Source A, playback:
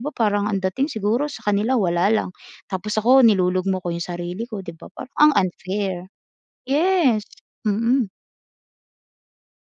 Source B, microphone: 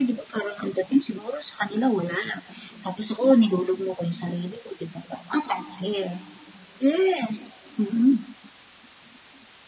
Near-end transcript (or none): none